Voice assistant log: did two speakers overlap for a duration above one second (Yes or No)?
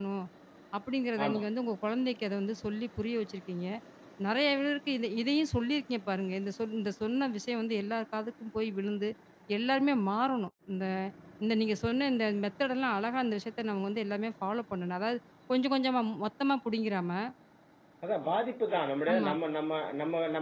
No